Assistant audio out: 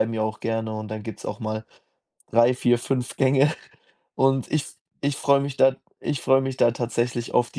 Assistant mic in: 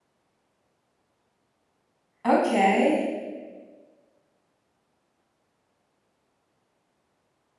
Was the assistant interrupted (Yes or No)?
Yes